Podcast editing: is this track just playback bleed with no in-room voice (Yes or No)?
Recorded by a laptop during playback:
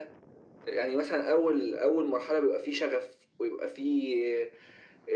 Yes